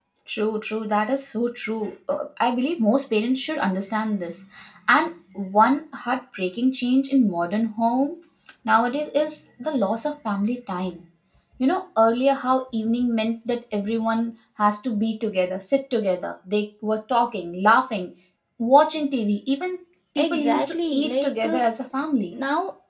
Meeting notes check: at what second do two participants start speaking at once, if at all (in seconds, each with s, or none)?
20.2 s